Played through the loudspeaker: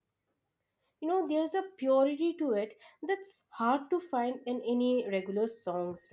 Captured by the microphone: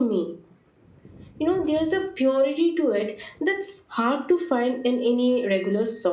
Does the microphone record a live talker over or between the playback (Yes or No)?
No